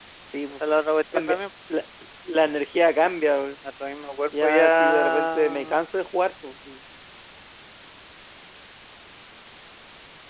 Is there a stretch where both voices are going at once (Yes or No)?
Yes